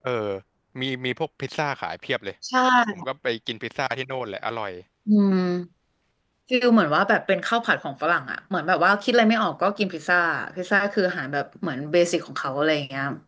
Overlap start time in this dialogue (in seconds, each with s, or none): none